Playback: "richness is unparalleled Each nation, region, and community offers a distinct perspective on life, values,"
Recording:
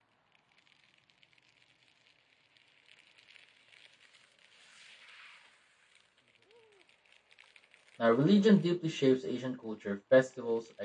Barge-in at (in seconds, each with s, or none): 8.0 s